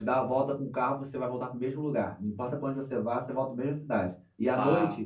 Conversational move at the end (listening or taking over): listening